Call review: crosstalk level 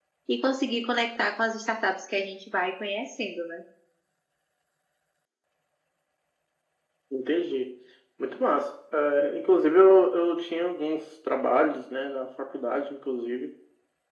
none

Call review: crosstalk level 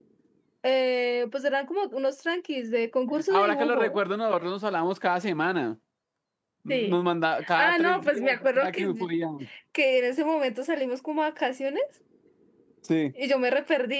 present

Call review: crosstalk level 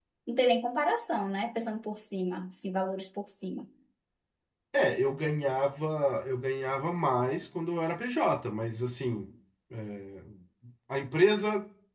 none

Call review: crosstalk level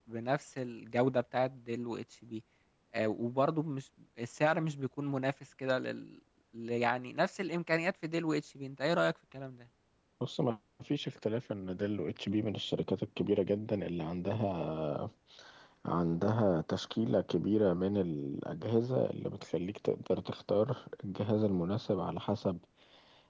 none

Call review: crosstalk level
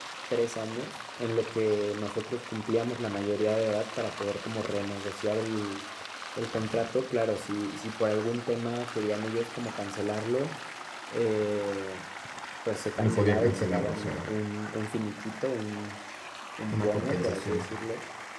present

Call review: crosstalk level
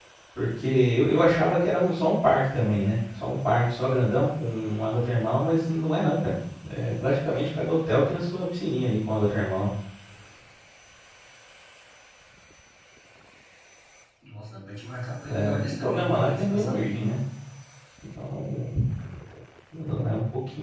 present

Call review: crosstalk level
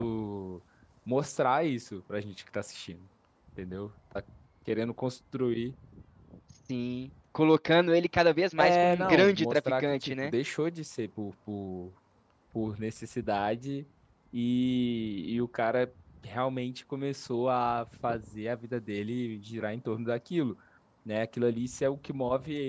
present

